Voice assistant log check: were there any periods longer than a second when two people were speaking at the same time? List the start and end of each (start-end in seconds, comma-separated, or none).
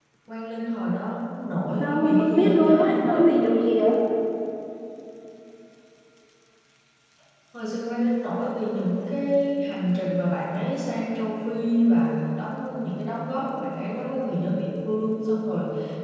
1.8-3.2